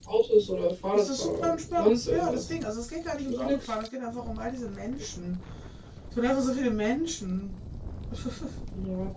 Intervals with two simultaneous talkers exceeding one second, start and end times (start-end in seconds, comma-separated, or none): 0.9-2.4